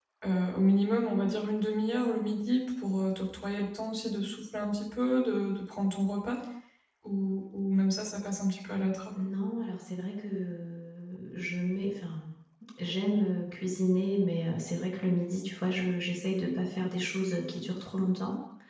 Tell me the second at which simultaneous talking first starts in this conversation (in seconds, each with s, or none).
none